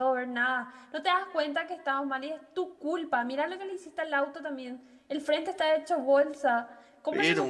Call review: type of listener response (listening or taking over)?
listening